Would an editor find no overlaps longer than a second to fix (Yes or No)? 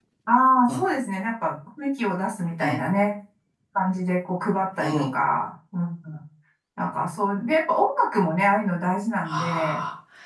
Yes